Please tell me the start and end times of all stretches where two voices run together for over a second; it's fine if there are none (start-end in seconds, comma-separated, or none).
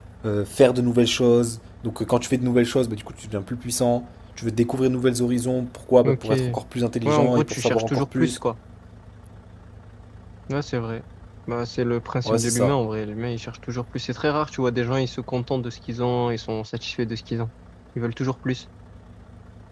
7.0-8.4